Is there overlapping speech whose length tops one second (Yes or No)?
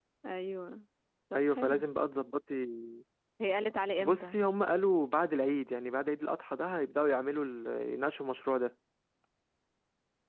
No